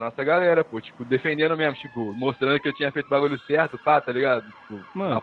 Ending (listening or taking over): taking over